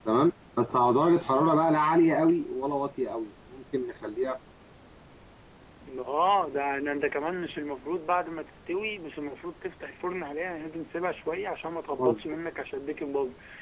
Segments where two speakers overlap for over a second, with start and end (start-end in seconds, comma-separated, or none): none